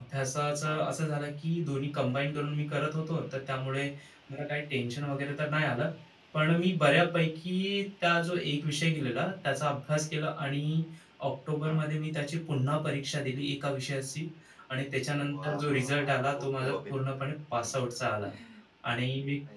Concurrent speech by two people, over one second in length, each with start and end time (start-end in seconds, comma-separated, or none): 15.3-17.1